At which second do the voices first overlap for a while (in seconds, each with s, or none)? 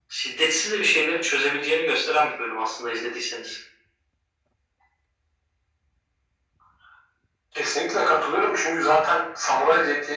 none